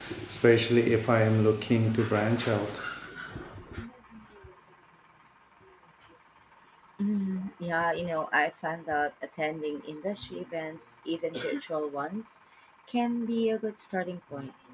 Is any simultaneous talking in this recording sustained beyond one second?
No

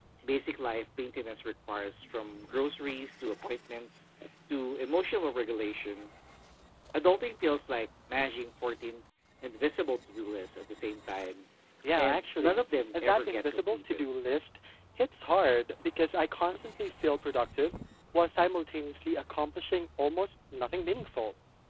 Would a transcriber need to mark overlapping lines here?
Yes, from 12.0 s

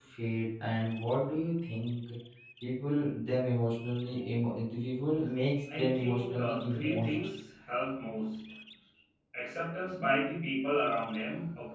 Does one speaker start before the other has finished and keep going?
Yes, from 5.7 s

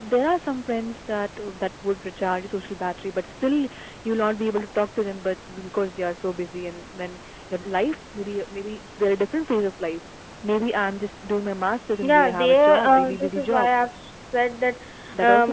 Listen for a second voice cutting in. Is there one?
Yes, from 12.0 s

